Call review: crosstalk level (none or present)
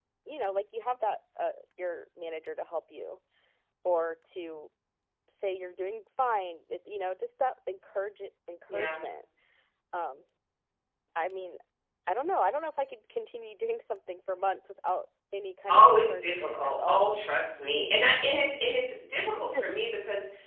present